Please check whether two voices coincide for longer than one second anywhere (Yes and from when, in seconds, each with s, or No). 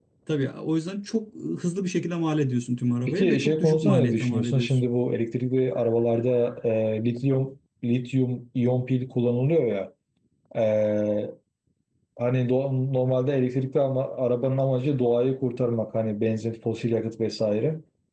Yes, from 3.1 s